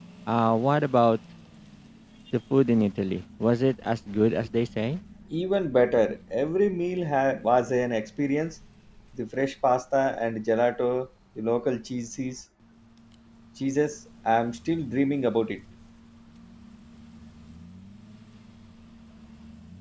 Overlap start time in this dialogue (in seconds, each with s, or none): none